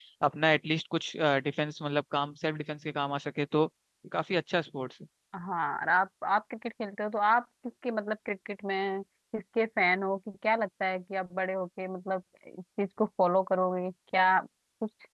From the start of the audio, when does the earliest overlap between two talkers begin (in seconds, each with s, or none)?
none